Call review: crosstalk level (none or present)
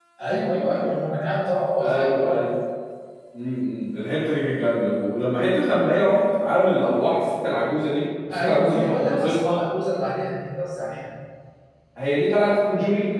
present